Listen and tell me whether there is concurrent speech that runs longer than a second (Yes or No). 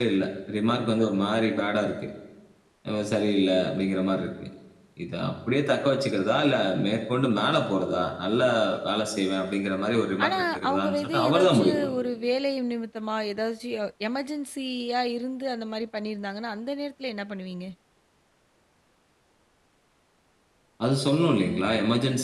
Yes